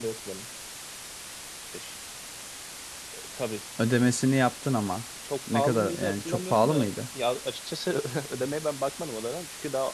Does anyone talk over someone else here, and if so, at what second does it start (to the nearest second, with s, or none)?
6 s